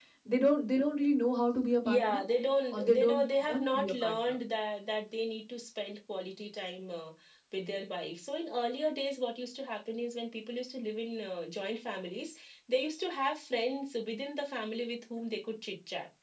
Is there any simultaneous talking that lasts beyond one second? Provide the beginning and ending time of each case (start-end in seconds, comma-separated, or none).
2.7-4.3